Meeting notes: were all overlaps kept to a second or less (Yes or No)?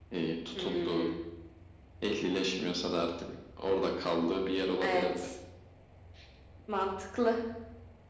Yes